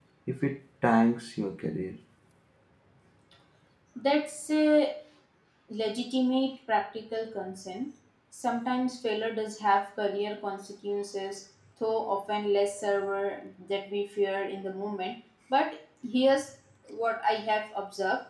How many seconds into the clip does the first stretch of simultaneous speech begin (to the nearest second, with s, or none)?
none